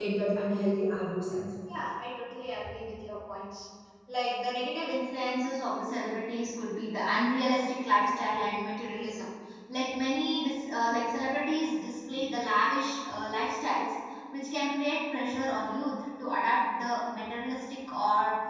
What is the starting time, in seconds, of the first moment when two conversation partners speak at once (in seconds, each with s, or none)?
none